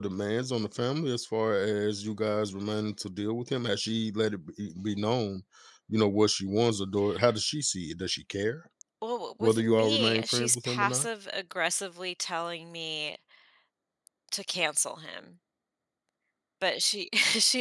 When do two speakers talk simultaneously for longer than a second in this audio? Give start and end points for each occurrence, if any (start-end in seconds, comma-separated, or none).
9.4-11.1